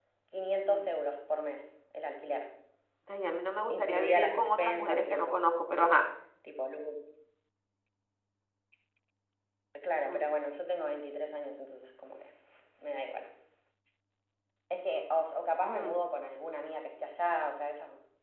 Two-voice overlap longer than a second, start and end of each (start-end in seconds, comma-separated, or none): 3.7-5.4